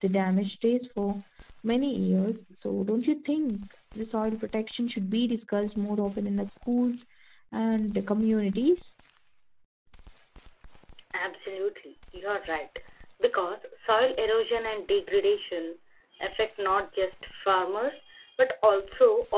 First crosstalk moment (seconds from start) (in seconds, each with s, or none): none